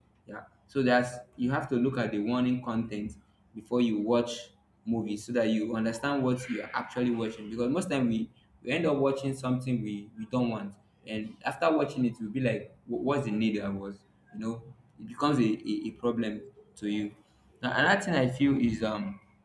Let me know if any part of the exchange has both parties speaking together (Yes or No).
No